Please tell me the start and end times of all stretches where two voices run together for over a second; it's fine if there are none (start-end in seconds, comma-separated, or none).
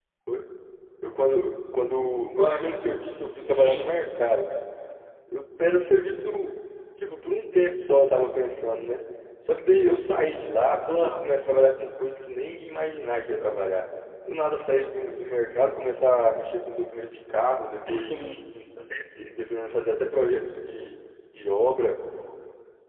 none